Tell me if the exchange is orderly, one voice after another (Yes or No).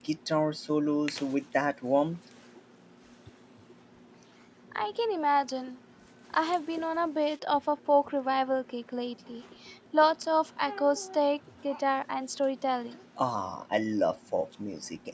Yes